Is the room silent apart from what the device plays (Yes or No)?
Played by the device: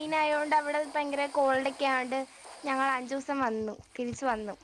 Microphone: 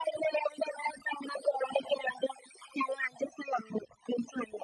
Yes